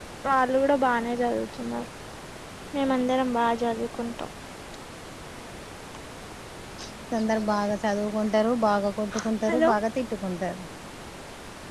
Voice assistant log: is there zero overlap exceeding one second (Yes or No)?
Yes